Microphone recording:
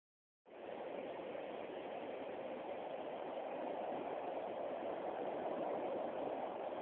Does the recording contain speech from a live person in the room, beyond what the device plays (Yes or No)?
No